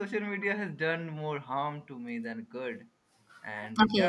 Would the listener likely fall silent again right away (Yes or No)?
No